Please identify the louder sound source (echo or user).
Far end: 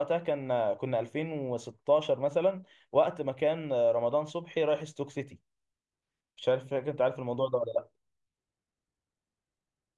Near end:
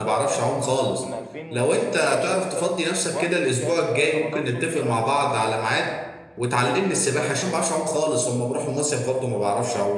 user